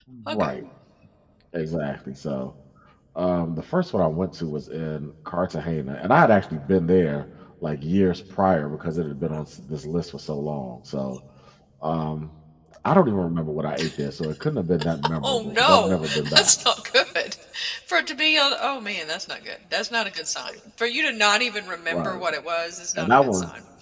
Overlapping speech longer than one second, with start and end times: 15.2-16.5

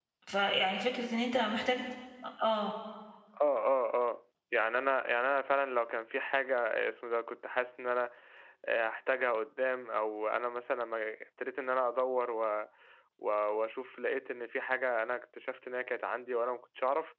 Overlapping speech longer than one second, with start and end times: none

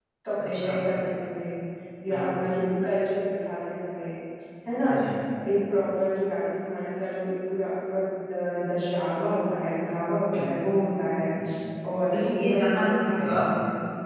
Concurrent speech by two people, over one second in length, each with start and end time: 12.1-13.4

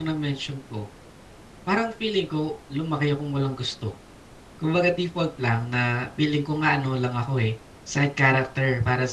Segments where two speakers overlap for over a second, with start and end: none

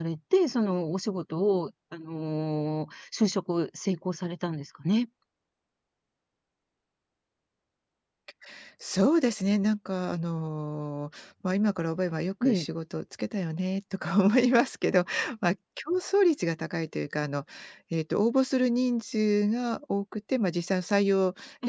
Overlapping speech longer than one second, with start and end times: none

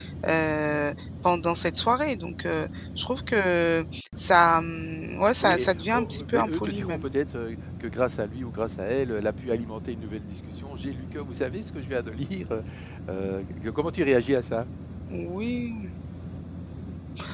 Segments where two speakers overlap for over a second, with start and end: 5.4-7.0

